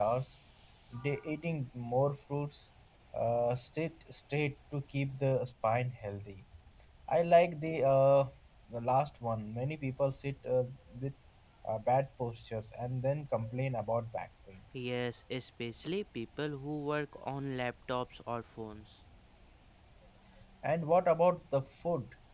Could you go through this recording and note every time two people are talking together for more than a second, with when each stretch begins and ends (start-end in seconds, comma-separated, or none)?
none